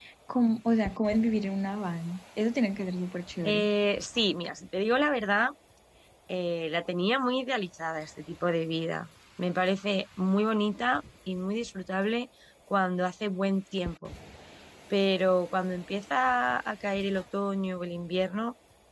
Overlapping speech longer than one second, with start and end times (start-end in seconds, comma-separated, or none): none